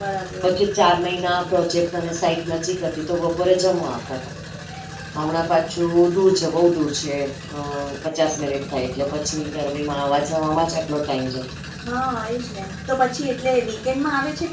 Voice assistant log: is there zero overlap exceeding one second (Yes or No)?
Yes